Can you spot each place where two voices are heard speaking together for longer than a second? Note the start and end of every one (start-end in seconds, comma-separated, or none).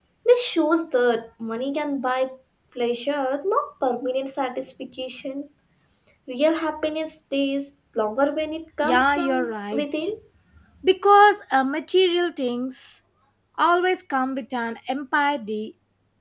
8.8-10.1